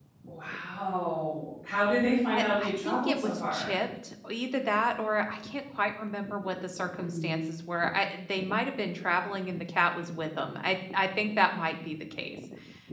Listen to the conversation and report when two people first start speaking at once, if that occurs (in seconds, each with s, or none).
2.3 s